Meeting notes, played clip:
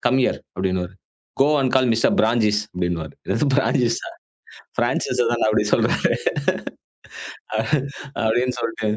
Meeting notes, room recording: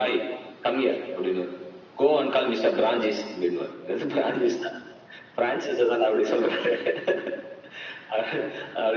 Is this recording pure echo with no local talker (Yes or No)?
Yes